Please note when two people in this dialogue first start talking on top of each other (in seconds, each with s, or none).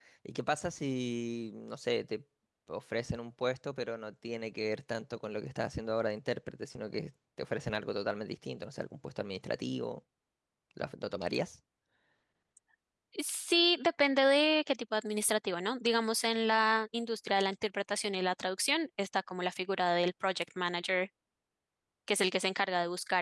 none